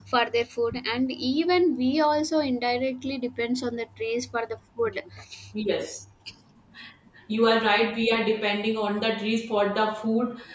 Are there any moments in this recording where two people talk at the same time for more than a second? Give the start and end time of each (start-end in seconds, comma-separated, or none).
none